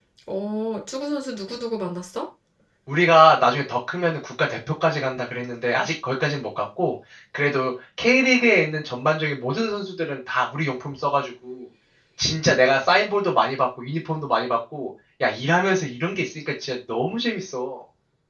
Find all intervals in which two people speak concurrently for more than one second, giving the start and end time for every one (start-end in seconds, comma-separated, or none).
none